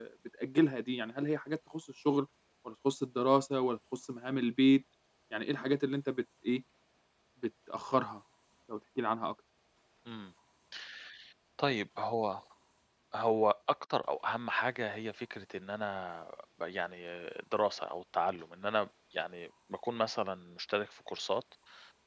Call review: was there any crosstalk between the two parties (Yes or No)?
No